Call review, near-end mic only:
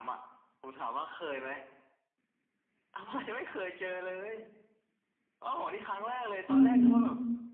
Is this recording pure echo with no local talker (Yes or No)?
No